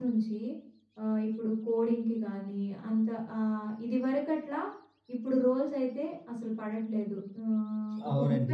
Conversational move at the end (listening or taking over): taking over